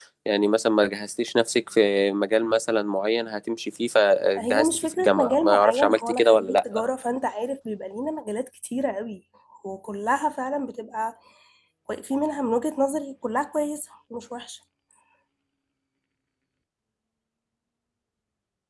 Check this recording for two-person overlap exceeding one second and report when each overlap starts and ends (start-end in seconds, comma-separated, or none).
4.4-6.8